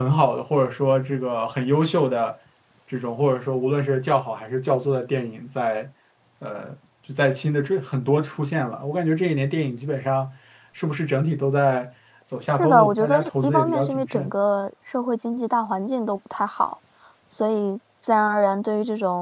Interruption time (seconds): 12.6 s

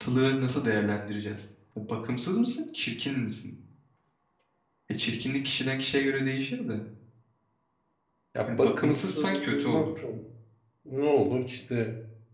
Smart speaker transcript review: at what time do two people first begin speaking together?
8.4 s

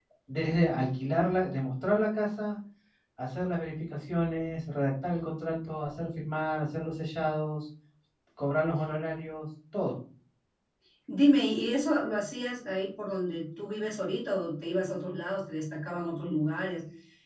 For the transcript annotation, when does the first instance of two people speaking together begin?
none

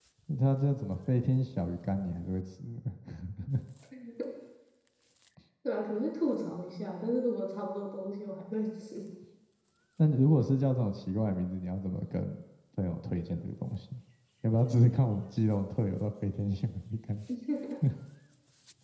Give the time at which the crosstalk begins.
none

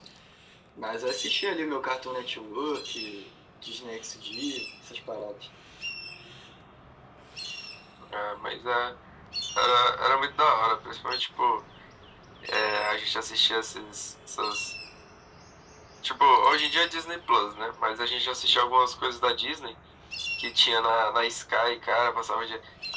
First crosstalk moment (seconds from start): none

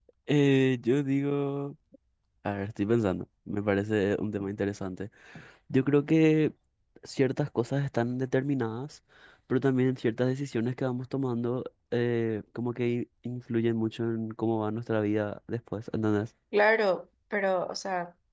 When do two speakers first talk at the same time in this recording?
none

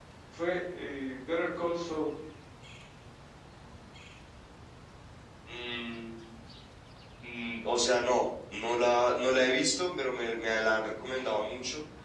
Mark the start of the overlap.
none

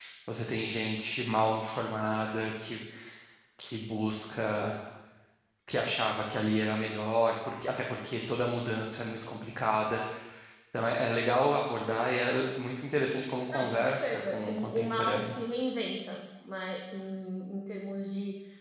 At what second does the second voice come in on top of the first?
13.5 s

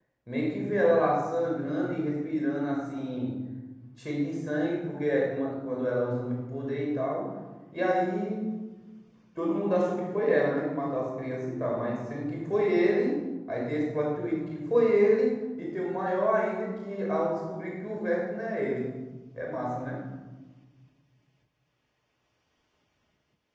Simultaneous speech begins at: none

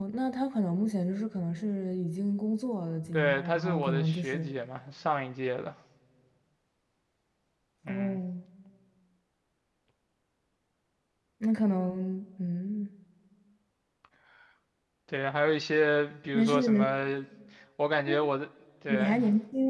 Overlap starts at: 3.1 s

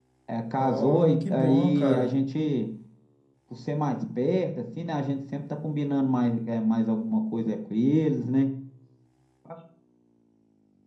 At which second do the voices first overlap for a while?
0.6 s

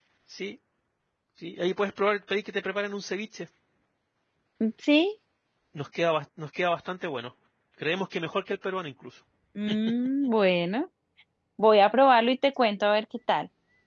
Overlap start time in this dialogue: none

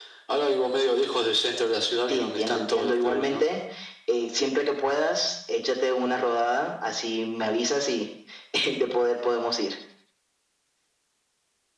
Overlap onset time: 2.1 s

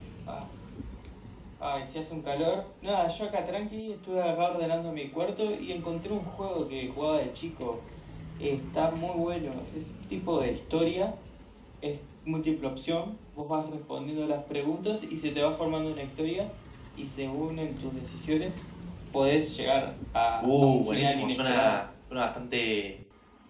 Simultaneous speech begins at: 20.4 s

